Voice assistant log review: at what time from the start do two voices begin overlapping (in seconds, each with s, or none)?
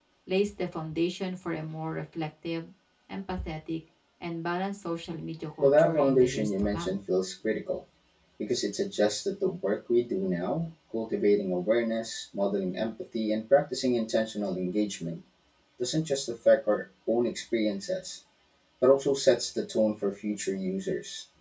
5.6 s